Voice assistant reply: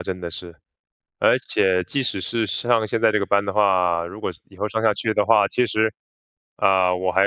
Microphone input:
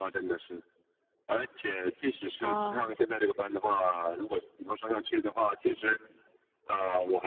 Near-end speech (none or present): present